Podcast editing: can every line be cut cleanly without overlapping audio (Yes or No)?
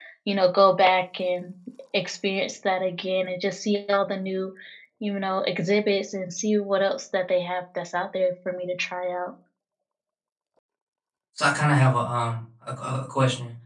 Yes